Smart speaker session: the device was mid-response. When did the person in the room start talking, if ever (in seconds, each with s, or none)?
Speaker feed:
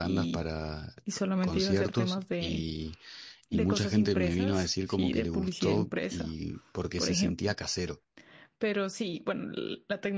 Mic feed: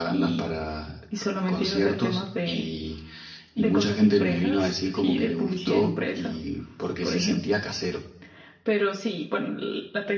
none